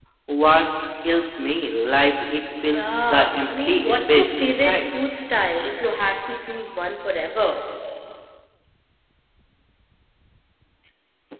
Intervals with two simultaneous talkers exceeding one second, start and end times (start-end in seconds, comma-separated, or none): 2.6-4.8